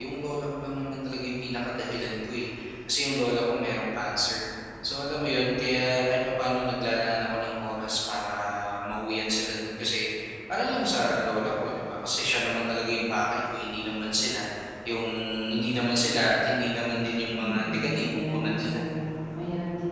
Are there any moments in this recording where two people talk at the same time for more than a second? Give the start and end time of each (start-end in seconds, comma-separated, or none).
17.4-18.7